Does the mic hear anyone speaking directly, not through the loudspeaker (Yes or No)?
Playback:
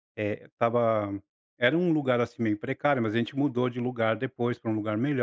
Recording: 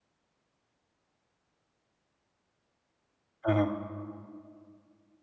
Yes